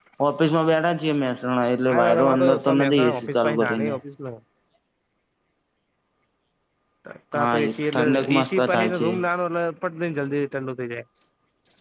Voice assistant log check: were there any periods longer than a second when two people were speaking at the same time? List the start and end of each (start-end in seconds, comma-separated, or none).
1.9-4.0, 7.3-9.1